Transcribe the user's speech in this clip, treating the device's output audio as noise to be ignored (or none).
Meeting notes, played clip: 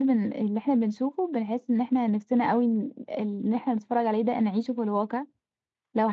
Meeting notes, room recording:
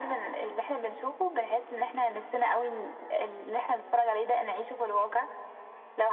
none